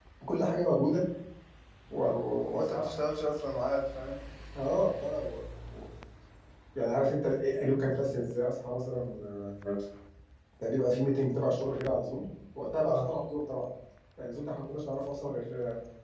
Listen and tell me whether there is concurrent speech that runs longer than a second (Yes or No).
No